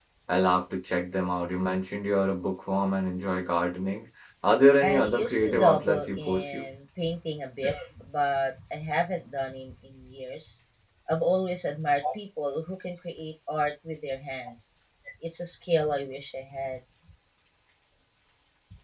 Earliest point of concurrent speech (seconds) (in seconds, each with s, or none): 4.8 s